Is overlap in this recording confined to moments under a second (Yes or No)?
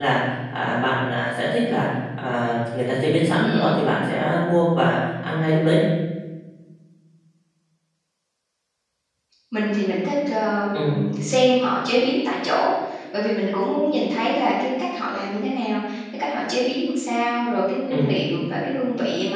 Yes